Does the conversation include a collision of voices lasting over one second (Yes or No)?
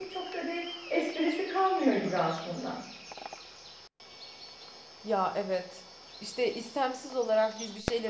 No